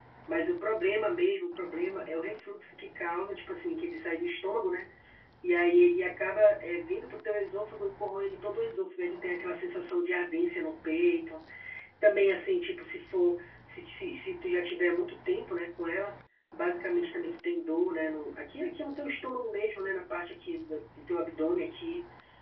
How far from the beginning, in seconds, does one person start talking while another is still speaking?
none

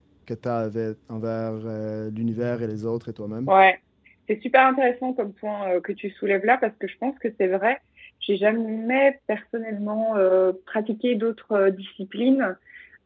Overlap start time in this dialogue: none

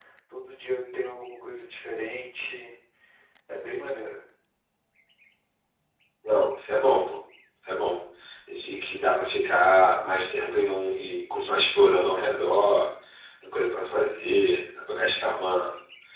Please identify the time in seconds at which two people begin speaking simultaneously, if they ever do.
none

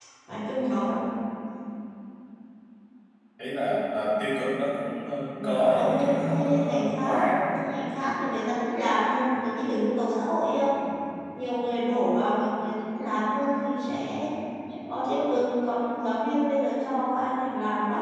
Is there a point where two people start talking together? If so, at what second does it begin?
5 s

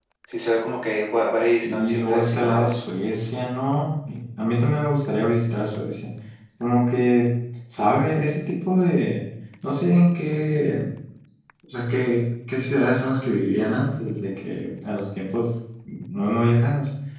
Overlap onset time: 2 s

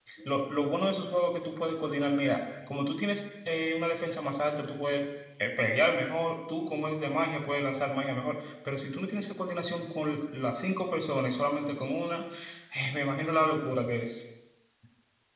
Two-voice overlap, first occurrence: none

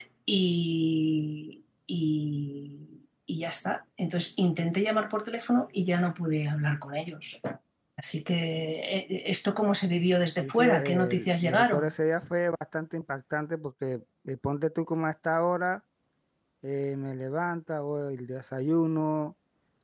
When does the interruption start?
10 s

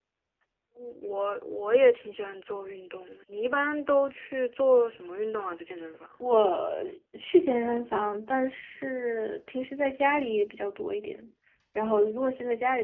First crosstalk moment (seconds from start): none

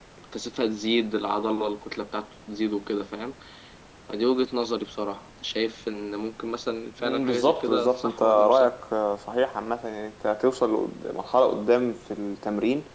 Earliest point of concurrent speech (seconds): 7 s

